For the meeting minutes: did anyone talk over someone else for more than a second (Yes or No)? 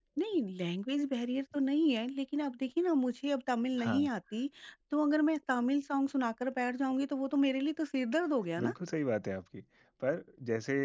No